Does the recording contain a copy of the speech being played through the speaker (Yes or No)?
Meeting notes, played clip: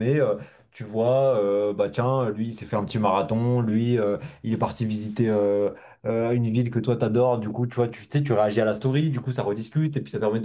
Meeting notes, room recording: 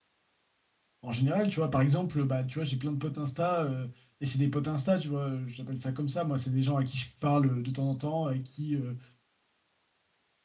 No